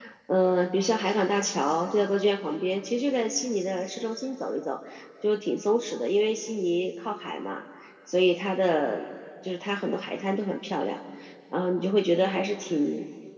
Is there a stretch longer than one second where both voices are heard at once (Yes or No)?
No